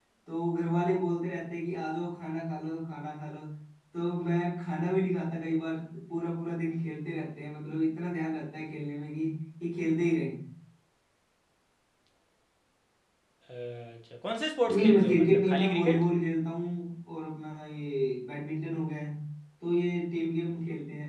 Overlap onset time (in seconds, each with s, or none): 14.7 s